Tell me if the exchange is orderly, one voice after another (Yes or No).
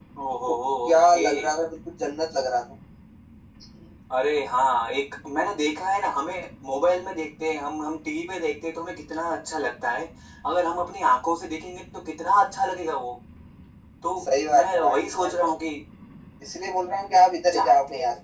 No